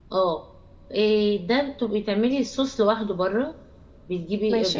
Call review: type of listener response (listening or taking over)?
listening